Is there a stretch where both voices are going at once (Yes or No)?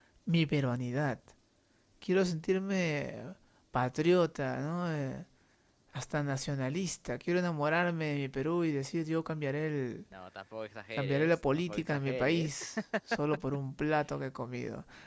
Yes